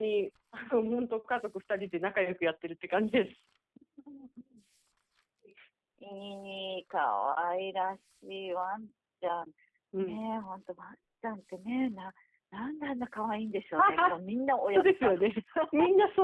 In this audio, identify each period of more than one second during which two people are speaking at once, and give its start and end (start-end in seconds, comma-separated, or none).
none